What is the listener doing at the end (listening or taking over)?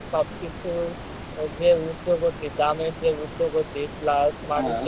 listening